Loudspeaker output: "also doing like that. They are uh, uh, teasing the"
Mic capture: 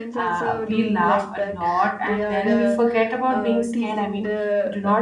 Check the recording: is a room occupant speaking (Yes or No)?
Yes